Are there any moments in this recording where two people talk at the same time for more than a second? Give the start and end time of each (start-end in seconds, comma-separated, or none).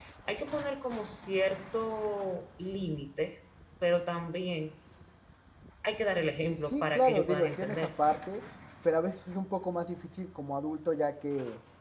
6.4-7.9